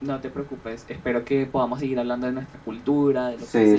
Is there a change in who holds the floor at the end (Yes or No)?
Yes